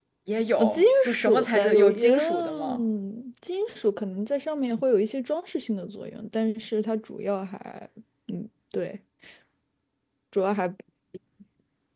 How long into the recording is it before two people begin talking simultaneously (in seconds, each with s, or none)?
0.6 s